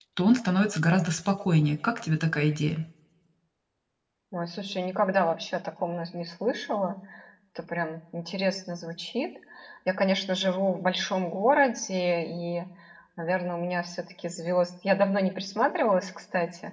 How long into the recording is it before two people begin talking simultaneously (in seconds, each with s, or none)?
none